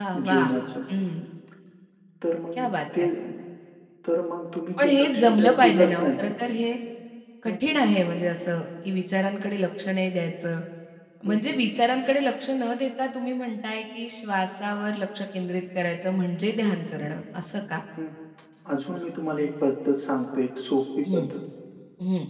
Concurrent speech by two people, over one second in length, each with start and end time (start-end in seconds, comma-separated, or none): 4.8-6.1